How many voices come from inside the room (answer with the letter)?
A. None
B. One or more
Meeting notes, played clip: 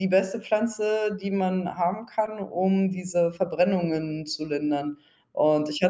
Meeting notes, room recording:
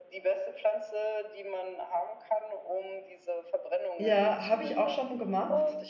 B